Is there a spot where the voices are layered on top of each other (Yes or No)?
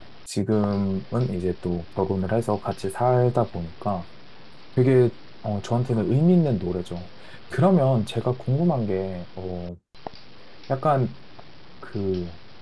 No